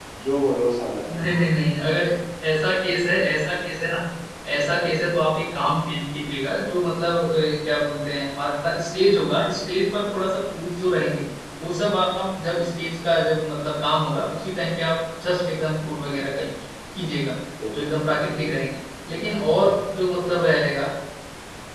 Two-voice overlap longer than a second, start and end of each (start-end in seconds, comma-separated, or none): none